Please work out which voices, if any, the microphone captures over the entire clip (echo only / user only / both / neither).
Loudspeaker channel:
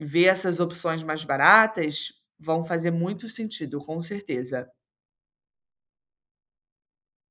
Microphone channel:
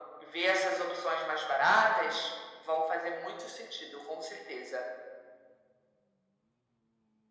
echo only